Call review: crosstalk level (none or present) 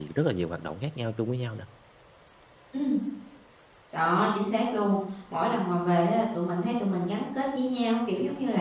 none